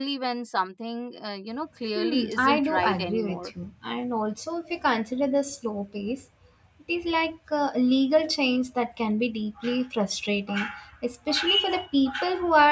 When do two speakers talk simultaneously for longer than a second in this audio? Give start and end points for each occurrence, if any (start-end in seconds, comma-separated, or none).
1.9-3.5